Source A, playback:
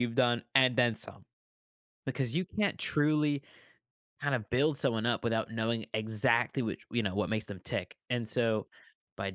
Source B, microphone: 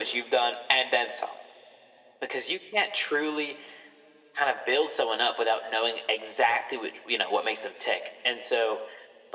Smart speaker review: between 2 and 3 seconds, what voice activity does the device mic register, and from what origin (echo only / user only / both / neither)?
echo only